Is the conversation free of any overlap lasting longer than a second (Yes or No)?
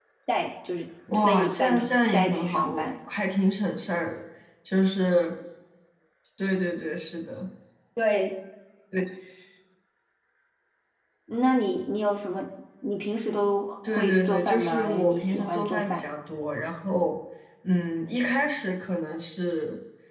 No